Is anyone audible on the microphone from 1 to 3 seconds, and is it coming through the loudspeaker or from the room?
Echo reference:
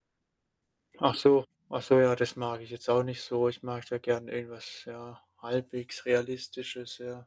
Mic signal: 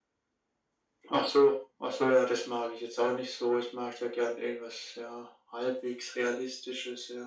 echo only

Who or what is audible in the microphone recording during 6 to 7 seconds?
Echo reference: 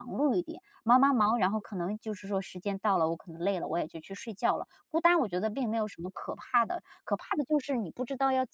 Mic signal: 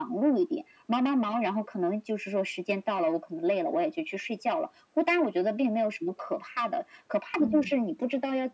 echo only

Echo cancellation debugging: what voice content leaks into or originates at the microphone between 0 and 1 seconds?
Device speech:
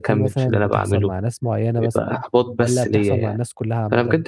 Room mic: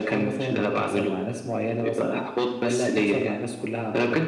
echo only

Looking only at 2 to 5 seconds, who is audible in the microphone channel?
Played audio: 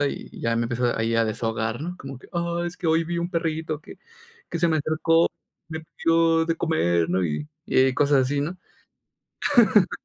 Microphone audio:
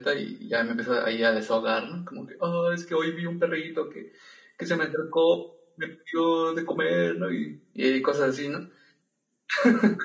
echo only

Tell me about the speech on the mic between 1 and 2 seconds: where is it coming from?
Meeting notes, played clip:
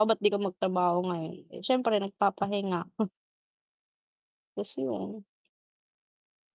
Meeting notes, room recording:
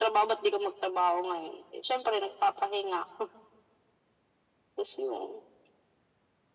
echo only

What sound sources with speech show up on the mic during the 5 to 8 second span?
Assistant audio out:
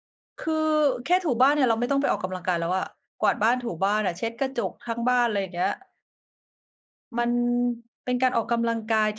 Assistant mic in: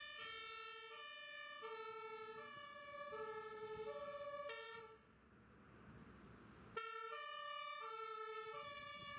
neither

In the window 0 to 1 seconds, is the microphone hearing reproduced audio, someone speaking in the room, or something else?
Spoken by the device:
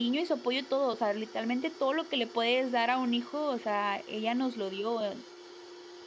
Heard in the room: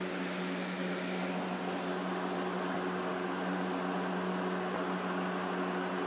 neither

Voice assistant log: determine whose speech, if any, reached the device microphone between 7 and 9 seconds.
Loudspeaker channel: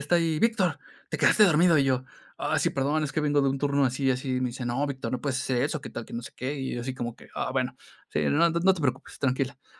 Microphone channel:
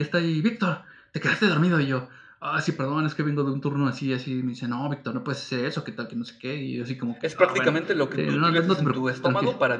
both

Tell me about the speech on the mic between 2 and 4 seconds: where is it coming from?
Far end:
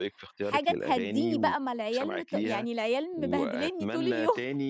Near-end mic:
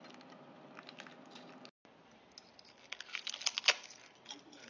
neither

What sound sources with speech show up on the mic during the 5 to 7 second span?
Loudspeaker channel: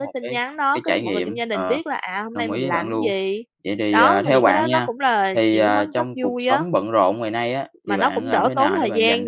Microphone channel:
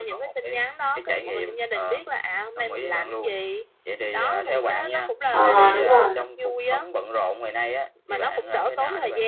both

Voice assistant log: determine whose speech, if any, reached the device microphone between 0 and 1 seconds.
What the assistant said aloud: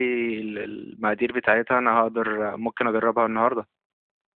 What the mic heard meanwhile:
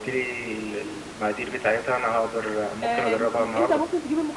echo only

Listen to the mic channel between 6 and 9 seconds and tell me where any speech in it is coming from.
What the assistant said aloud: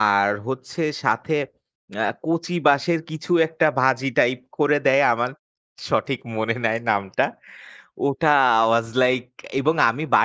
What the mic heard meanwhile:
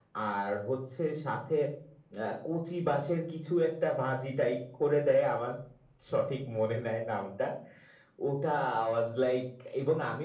echo only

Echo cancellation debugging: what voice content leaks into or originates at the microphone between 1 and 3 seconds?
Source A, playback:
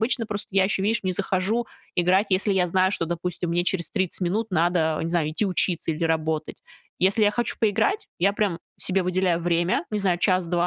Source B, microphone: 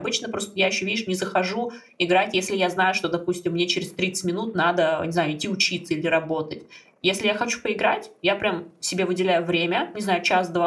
echo only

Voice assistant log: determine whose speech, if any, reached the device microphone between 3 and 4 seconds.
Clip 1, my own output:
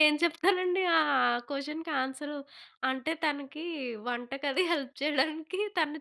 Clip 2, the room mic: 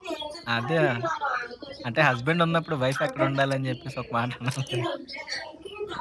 both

